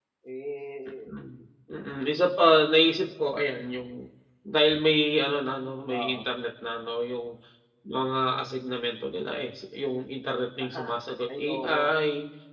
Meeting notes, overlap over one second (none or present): none